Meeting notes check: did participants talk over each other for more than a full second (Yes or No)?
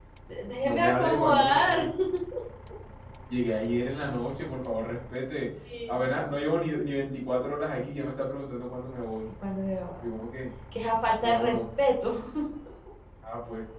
Yes